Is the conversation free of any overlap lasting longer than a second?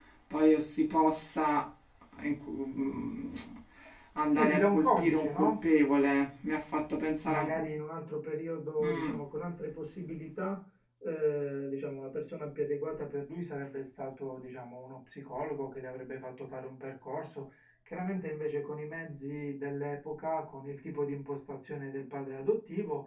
No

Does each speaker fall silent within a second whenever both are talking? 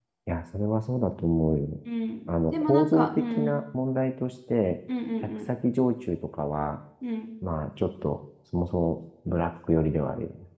No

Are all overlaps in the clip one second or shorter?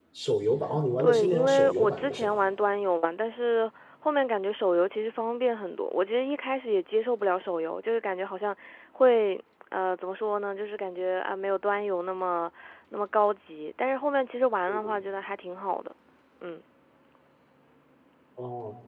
No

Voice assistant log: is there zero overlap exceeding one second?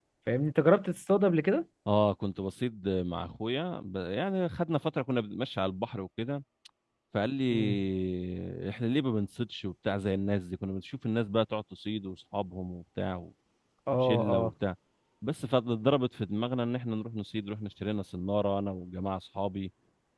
Yes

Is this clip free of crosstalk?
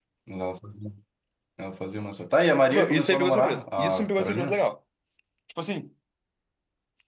No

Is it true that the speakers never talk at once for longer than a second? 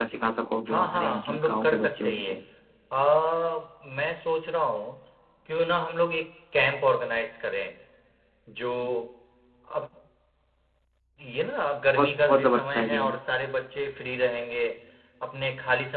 No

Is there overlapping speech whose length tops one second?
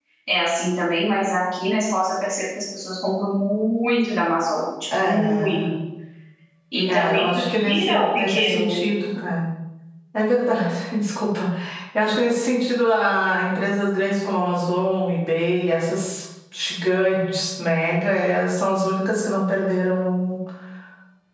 Yes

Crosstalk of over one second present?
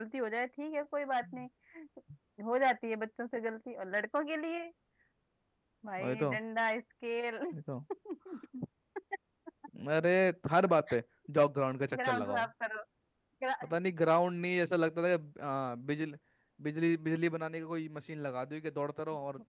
No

